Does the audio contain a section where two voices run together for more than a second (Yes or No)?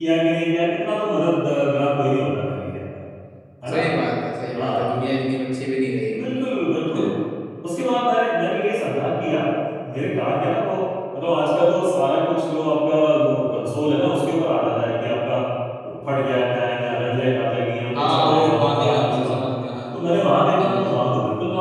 Yes